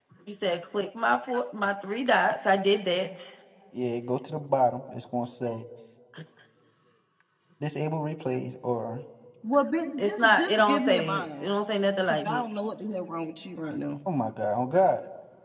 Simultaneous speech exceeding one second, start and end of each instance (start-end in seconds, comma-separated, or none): 10.0-11.4